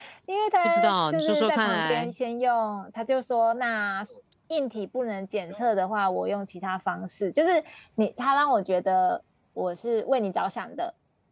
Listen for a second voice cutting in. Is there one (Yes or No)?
Yes